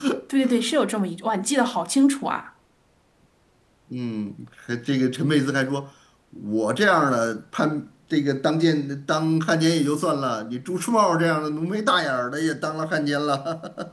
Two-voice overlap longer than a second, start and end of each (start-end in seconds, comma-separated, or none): none